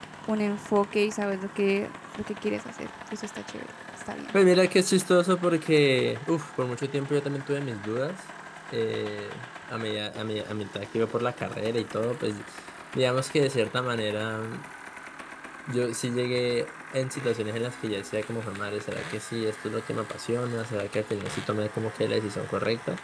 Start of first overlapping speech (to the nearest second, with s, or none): none